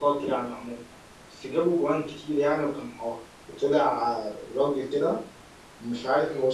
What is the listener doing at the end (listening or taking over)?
listening